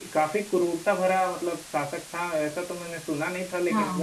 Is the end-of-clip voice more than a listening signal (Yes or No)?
No